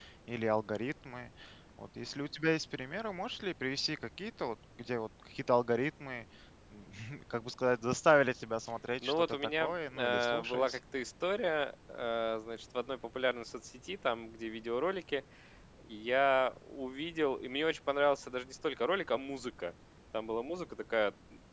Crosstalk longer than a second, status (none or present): present